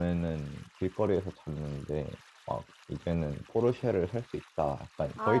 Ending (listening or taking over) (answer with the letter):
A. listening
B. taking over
B